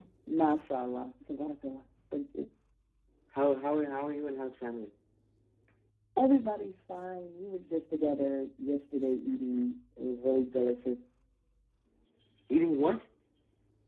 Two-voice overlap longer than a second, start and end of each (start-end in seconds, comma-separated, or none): none